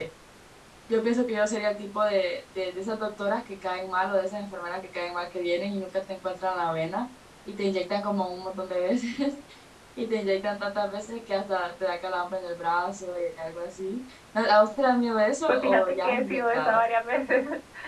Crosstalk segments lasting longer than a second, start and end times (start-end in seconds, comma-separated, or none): 15.5-16.8